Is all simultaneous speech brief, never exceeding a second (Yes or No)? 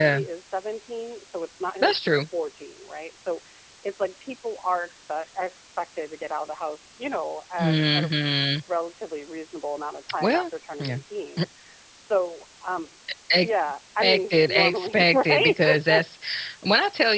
No